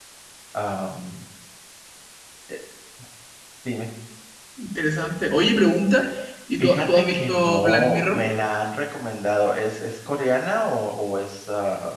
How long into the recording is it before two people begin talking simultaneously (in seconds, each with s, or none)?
6.6 s